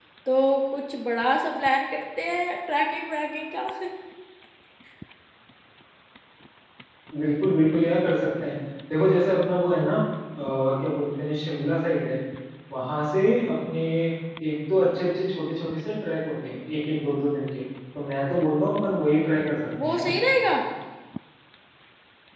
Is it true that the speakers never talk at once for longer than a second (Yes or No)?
Yes